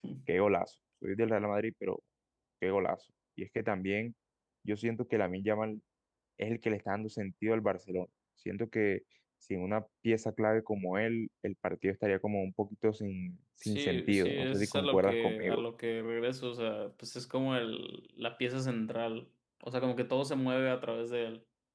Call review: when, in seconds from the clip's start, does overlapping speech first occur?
14 s

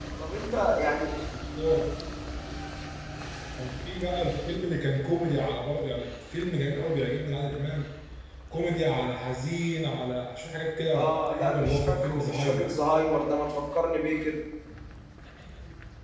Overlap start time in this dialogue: 11 s

